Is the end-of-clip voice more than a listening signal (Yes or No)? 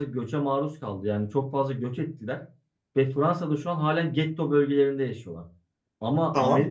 No